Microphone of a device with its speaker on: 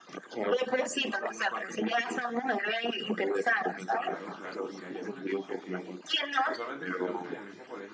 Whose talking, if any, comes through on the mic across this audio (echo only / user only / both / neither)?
both